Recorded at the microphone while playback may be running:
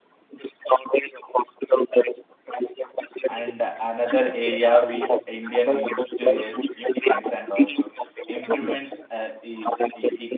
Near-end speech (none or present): present